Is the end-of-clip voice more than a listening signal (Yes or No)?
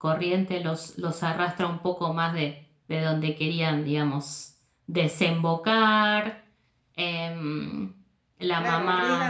Yes